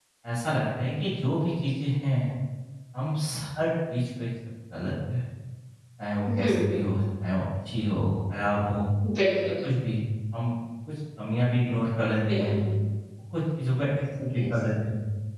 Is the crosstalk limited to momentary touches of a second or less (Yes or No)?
Yes